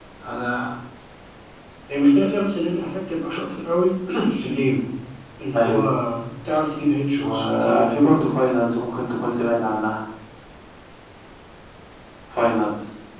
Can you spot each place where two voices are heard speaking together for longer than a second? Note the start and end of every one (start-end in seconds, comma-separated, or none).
7.2-8.3